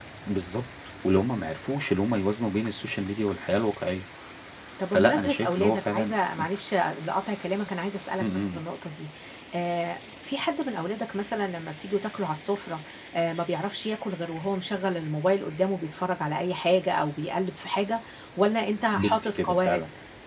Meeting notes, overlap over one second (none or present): present